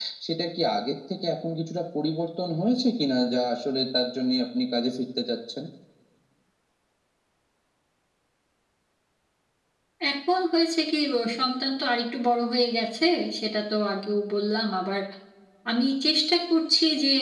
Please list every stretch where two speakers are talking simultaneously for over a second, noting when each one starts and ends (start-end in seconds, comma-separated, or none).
none